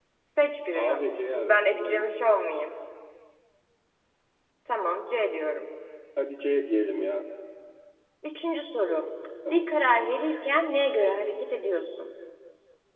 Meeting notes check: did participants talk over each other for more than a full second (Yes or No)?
Yes